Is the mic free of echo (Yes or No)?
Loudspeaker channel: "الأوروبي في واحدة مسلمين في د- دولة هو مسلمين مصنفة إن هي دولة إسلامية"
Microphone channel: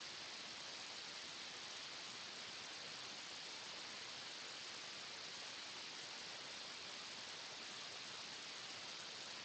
Yes